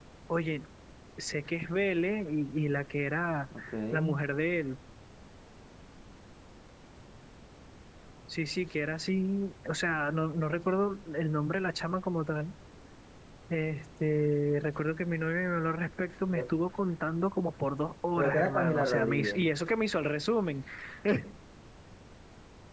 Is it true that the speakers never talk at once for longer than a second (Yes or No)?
No